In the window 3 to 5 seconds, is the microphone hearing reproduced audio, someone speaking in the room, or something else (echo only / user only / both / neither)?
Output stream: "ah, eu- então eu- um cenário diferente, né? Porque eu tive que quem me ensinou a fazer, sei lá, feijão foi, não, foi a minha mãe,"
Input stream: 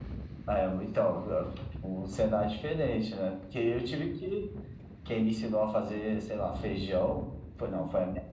echo only